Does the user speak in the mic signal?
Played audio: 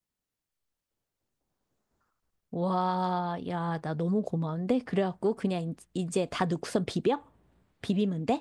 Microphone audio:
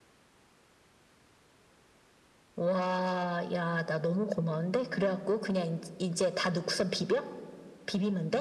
No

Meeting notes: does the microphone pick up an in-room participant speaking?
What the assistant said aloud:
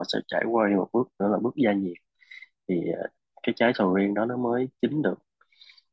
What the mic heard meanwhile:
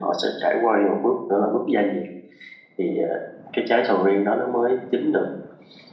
No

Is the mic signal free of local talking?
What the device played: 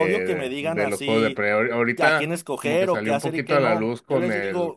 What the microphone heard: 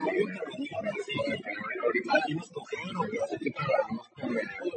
Yes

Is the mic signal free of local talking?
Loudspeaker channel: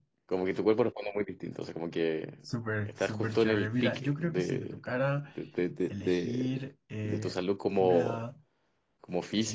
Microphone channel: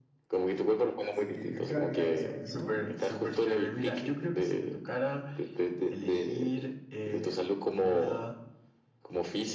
No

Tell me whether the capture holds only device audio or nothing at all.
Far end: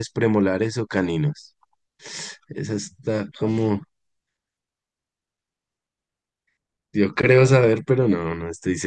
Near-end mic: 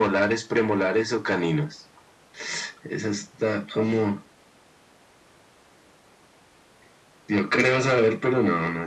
Yes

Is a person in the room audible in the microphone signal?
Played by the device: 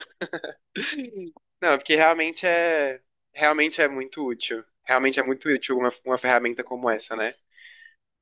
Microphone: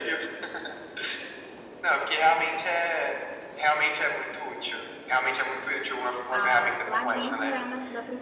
Yes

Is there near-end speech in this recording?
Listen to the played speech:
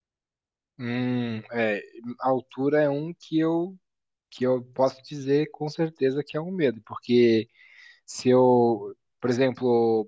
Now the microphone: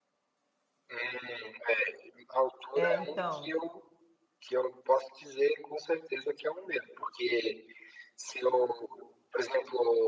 Yes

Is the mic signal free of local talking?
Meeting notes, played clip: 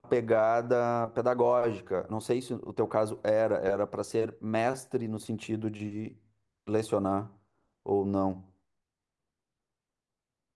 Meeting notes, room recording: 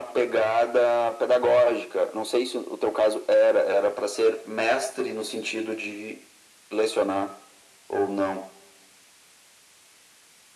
Yes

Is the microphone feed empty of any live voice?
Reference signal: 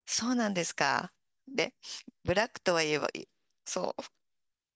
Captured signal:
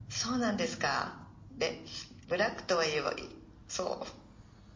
Yes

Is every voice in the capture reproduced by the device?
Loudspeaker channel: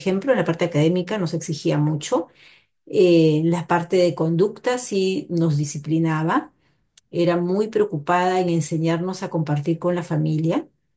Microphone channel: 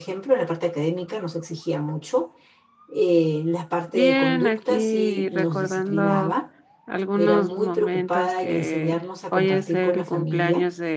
No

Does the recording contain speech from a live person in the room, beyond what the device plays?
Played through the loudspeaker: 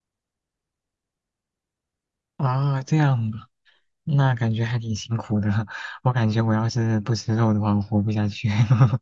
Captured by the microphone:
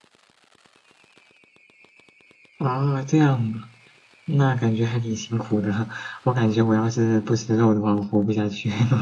No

